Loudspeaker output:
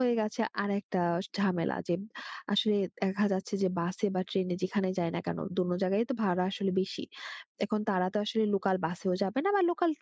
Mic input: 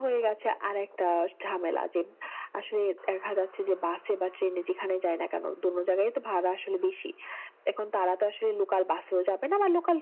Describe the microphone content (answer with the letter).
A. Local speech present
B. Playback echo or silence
B